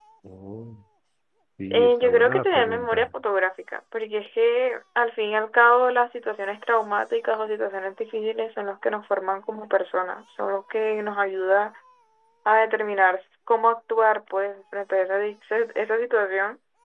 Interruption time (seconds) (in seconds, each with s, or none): 1.7 s